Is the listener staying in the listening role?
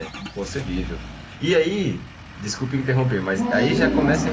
Yes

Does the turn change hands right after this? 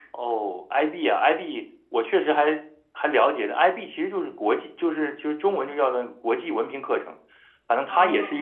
No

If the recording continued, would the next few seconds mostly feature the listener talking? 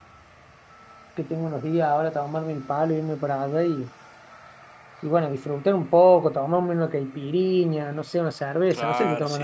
Yes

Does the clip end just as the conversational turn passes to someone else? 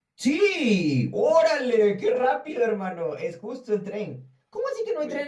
No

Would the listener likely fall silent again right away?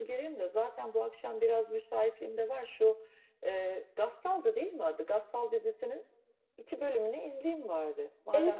No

